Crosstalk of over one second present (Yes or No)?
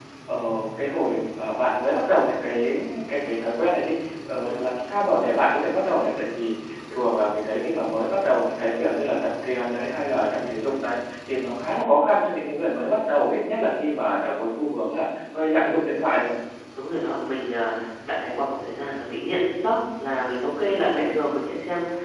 No